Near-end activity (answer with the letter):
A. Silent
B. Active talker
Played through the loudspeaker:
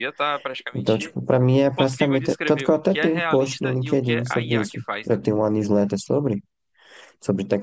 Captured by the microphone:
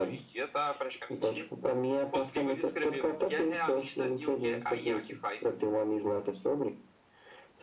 A